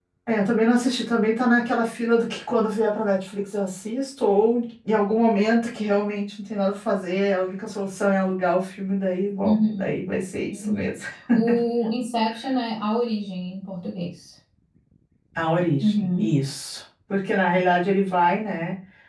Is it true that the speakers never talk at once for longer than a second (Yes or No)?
Yes